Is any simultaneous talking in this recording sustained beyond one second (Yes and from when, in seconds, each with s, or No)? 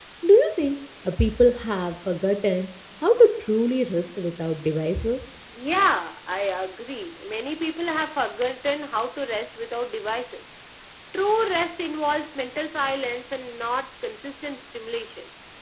No